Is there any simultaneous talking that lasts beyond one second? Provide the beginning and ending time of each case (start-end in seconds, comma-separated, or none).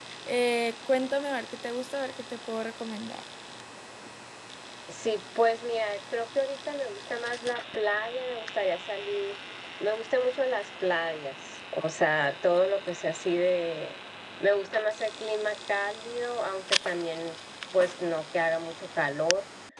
none